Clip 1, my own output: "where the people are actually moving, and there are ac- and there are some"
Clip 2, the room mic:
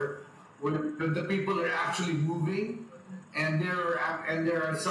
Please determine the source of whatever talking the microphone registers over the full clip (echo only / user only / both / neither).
echo only